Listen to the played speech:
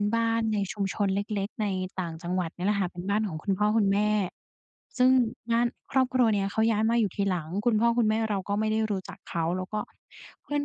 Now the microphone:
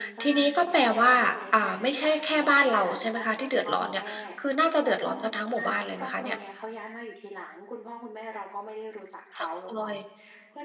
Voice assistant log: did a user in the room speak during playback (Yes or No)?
Yes